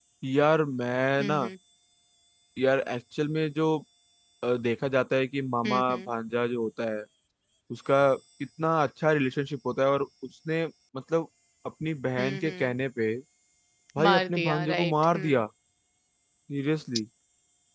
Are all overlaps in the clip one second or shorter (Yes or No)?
No